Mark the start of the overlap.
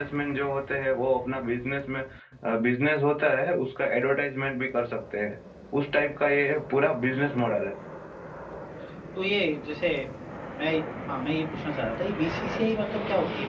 none

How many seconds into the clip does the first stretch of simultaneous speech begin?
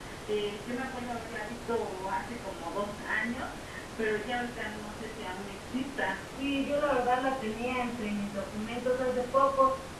none

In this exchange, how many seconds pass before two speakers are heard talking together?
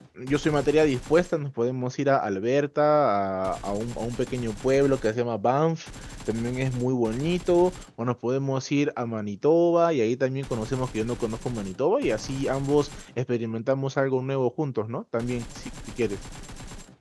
none

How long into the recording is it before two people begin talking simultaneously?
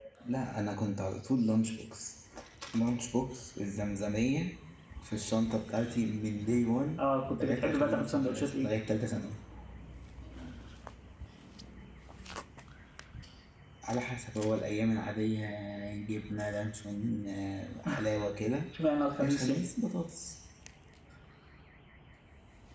7.4 s

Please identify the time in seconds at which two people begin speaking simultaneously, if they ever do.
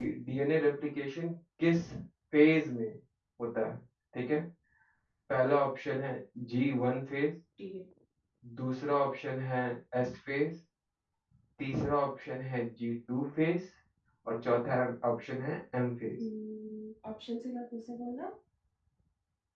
none

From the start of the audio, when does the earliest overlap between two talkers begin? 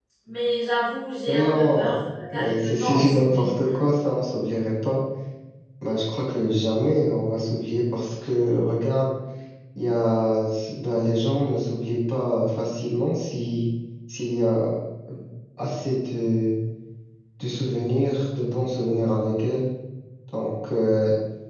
1.3 s

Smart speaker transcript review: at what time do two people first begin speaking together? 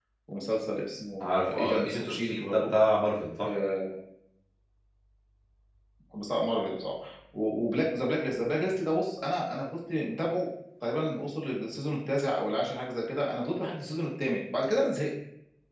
1.2 s

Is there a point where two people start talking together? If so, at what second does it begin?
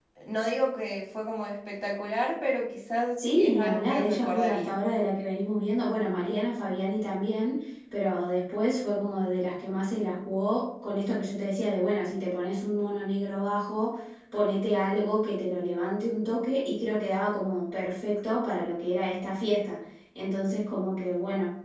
3.2 s

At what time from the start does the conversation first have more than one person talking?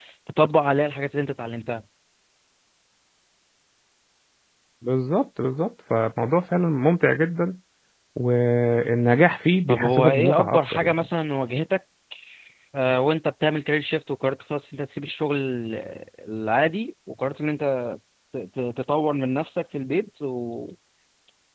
9.7 s

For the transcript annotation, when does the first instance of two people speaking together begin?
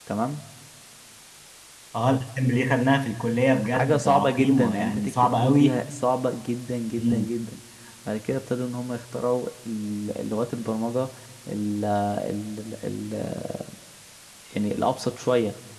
3.7 s

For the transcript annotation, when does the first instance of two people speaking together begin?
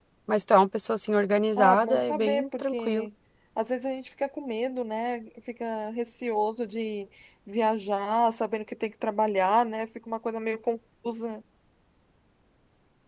1.6 s

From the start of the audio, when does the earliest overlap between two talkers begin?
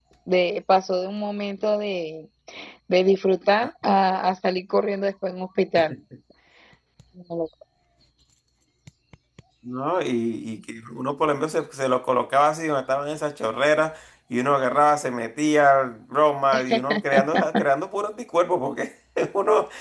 none

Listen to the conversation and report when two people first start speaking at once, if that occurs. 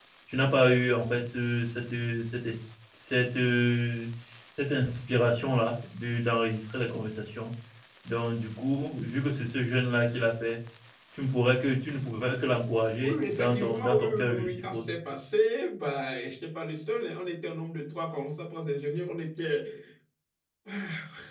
13.0 s

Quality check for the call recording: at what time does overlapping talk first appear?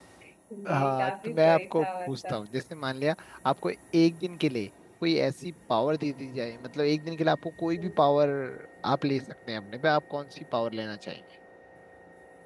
0.7 s

